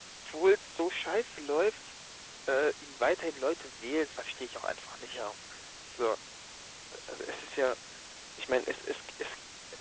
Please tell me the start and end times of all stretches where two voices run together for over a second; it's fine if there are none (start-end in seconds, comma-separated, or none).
none